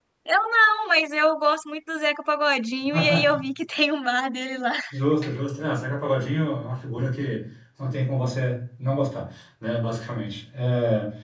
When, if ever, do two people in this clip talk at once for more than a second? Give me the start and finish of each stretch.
none

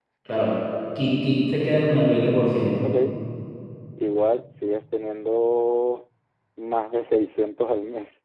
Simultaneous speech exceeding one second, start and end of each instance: none

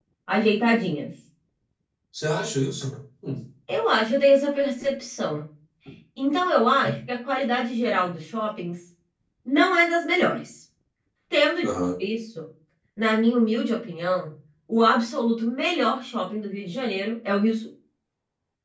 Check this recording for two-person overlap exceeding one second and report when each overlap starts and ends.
none

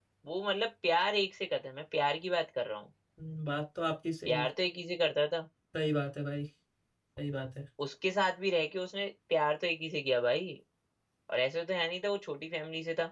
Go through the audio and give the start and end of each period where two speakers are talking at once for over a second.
none

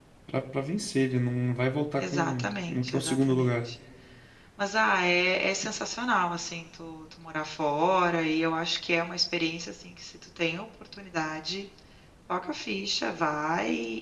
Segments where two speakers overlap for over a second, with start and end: 2.0-3.7

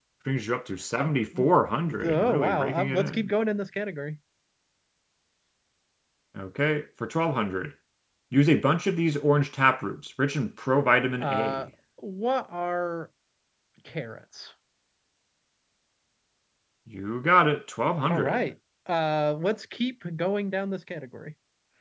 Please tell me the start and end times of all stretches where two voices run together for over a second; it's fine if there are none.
2.0-3.3

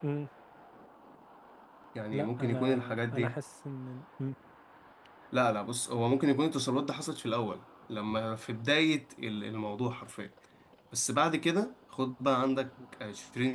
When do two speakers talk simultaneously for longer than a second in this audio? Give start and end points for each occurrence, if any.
2.1-3.3

